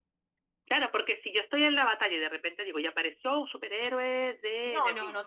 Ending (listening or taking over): taking over